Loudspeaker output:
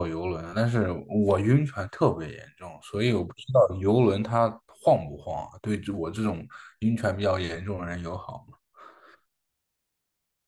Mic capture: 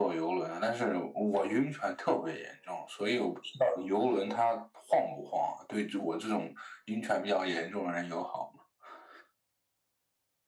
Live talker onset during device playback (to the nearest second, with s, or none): none